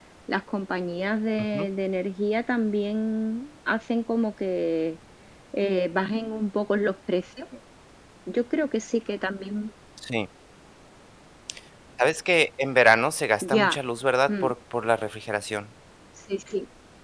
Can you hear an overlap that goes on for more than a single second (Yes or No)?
No